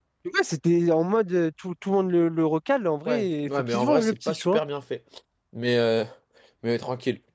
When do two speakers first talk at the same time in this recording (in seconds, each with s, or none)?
3.0 s